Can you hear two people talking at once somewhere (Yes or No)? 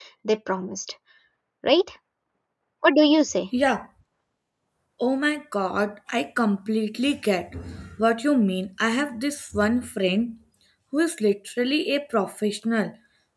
No